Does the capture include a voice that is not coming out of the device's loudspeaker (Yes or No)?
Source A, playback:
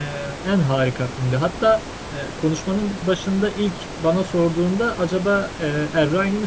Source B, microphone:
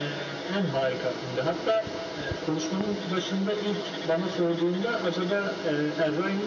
No